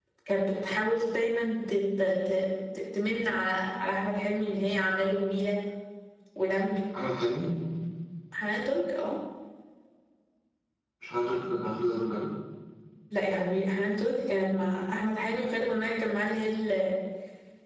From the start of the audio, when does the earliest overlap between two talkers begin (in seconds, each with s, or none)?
none